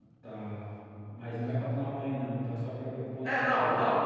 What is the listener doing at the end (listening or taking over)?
taking over